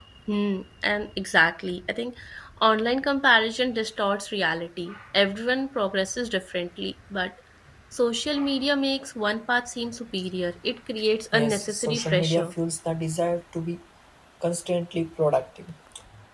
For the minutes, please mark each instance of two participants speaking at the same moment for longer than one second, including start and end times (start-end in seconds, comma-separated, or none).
11.3-12.5